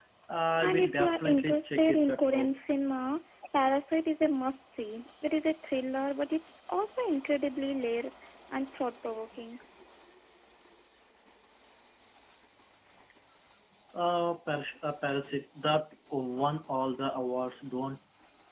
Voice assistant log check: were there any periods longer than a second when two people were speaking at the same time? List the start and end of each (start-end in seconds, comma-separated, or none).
0.6-2.5